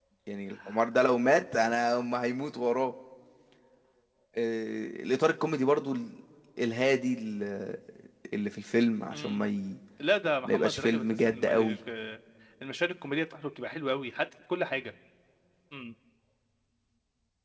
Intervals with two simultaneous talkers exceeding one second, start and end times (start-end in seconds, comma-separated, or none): 10.4-11.8